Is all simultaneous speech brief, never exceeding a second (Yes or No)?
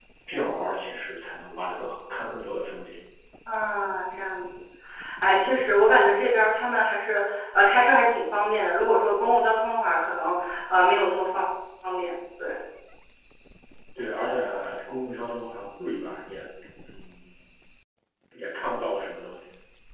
Yes